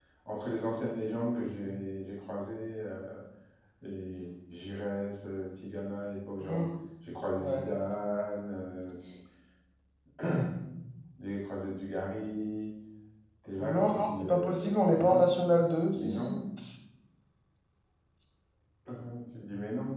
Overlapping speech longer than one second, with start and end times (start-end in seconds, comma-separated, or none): 13.6-15.3